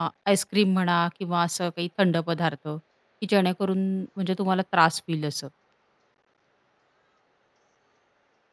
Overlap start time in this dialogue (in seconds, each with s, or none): none